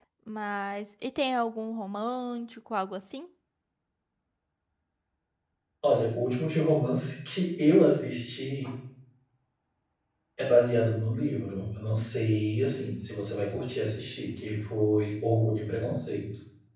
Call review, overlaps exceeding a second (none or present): none